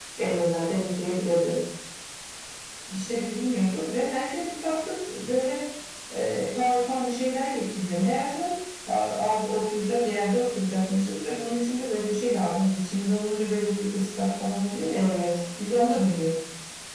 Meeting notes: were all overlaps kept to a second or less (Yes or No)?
Yes